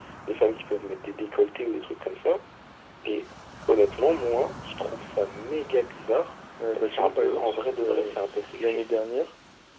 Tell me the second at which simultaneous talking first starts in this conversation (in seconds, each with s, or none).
6.8 s